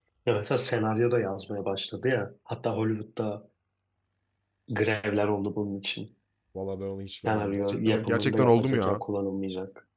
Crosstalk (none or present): present